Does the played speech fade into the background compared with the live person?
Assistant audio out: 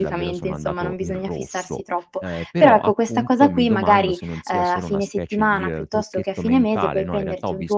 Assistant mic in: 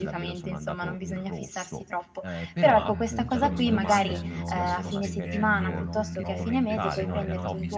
No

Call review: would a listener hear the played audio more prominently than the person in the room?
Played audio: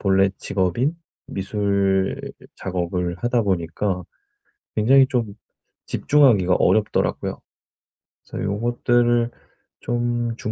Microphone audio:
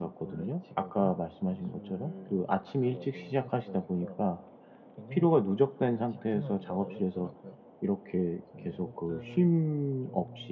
No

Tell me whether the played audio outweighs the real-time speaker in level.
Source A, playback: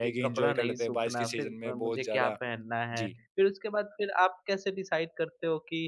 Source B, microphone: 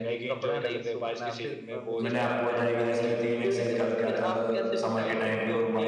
No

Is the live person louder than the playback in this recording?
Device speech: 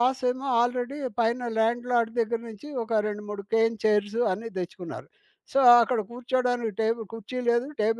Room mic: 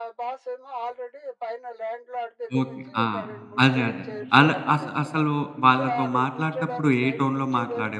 Yes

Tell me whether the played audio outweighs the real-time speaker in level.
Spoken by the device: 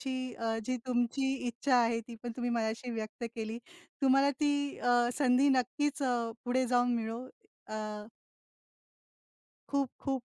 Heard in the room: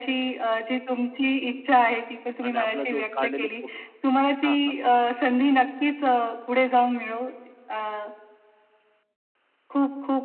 Yes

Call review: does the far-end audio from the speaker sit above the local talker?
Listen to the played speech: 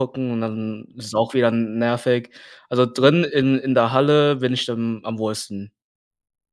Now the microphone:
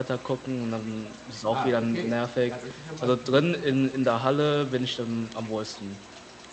Yes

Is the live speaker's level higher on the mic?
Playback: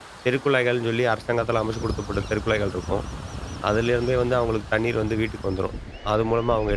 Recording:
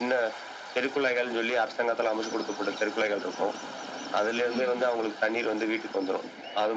No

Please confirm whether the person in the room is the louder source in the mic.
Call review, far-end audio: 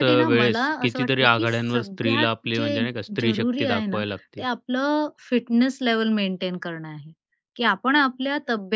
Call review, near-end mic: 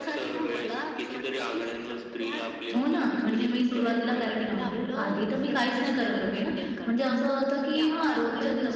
Yes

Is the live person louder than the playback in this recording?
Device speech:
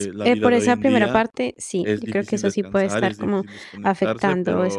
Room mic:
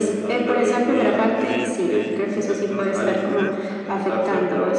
No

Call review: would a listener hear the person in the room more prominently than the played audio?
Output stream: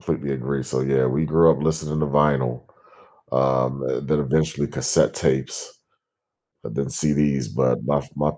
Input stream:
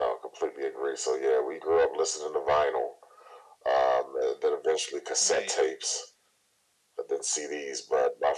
No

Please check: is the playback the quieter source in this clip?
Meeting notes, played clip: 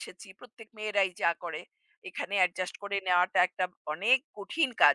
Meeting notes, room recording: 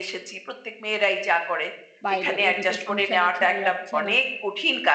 No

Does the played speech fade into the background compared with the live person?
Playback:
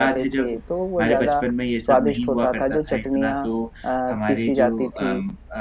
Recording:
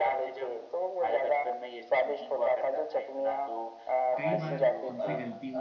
No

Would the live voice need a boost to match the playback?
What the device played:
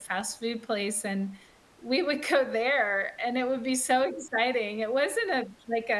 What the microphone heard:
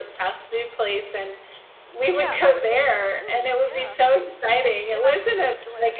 Yes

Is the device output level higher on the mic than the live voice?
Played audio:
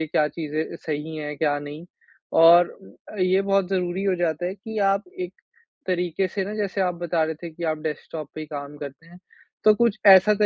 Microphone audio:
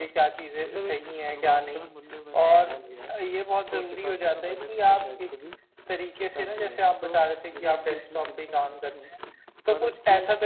Yes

